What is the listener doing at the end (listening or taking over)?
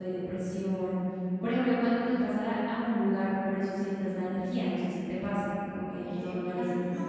taking over